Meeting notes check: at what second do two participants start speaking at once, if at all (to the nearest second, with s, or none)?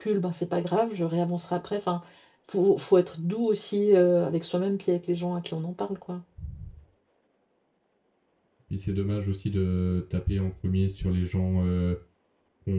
none